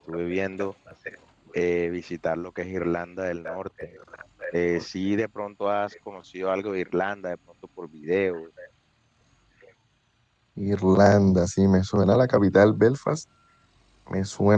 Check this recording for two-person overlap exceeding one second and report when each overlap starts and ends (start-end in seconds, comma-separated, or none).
none